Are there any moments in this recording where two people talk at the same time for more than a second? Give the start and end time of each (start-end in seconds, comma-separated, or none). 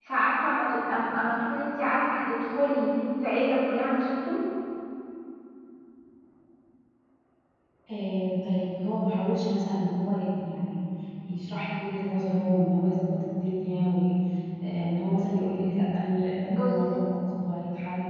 none